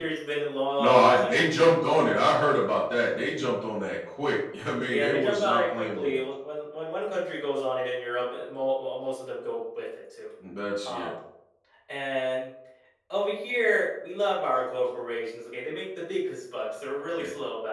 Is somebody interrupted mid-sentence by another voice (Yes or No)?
Yes